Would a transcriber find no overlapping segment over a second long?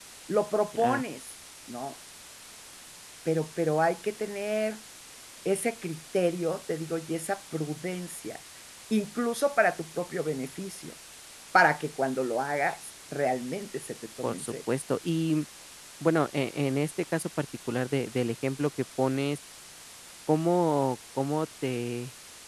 Yes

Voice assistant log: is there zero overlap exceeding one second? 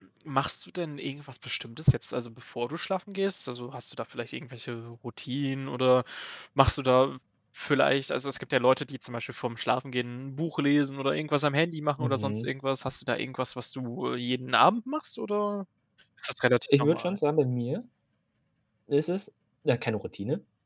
Yes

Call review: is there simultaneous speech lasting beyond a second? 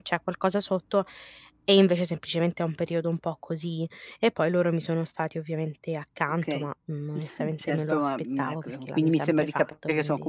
Yes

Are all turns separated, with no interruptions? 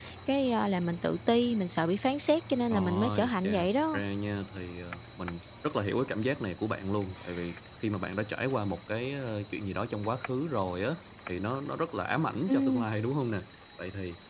No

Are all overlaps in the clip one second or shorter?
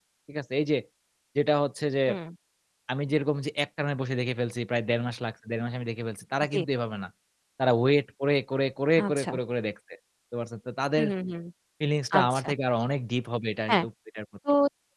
Yes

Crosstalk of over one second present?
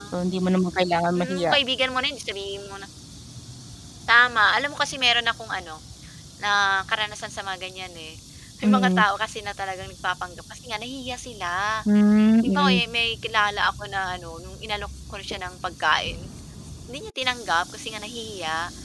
No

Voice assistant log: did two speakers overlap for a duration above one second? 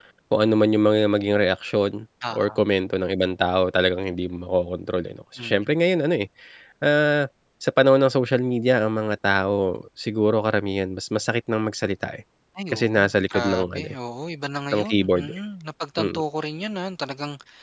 Yes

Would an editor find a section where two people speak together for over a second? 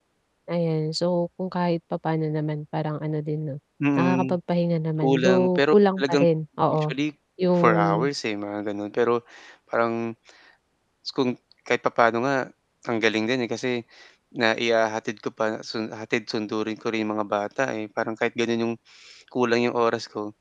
Yes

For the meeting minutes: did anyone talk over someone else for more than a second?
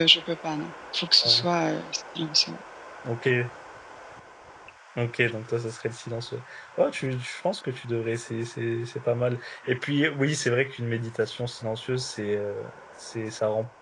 No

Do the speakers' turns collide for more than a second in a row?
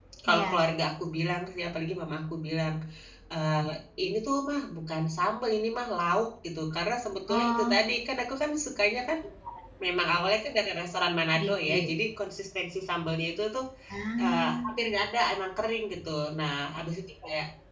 No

